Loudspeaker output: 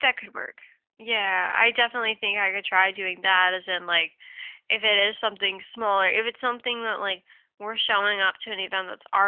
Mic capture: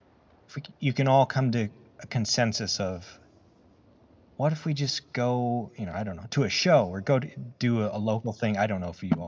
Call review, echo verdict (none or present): none